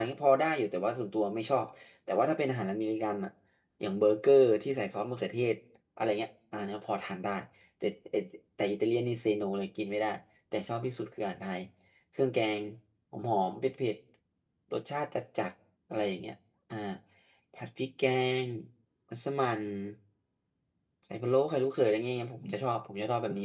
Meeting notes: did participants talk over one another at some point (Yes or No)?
No